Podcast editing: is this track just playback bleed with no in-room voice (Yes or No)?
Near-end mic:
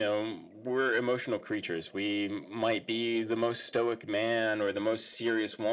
Yes